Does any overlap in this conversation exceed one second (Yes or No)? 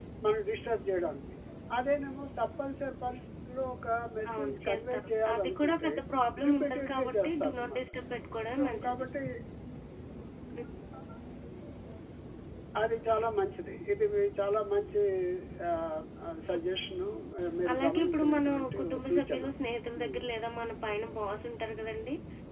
Yes